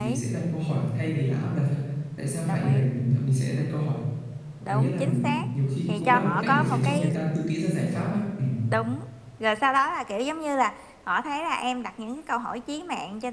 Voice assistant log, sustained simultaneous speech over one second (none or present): present